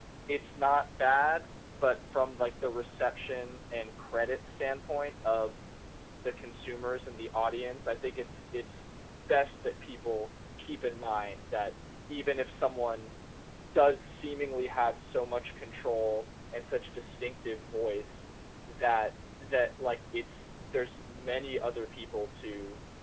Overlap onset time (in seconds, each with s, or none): none